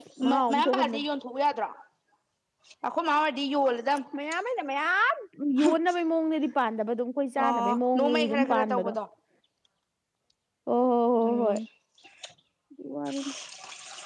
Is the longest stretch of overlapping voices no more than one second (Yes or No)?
No